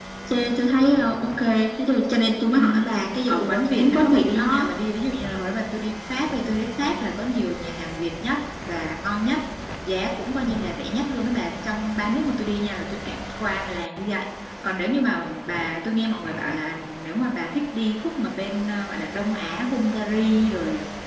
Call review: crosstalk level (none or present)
present